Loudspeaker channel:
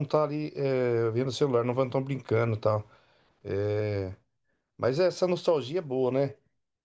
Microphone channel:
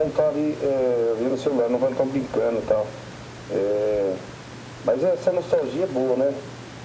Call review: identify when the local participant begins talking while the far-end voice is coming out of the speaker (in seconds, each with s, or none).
none